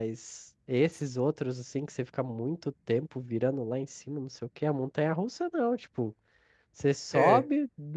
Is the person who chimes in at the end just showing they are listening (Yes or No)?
Yes